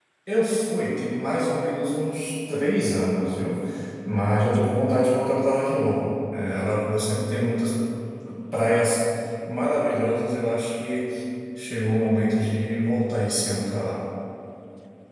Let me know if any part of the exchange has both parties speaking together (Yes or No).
No